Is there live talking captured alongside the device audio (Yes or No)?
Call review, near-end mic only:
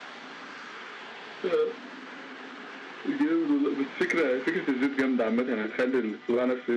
No